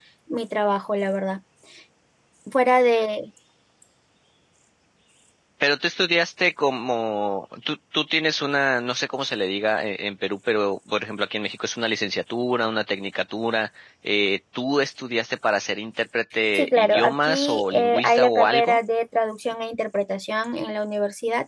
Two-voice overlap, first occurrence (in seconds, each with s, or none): 16.6 s